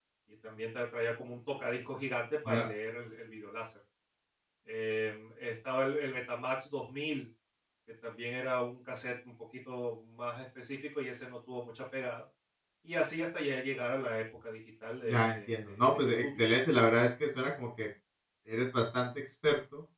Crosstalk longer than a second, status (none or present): present